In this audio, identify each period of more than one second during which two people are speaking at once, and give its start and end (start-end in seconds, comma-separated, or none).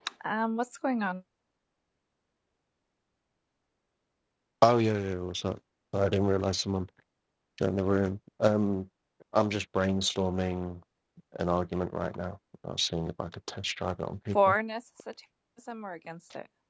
none